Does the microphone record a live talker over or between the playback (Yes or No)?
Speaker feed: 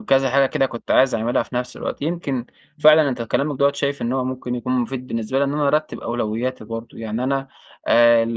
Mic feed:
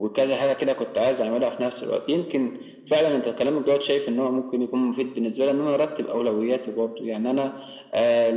No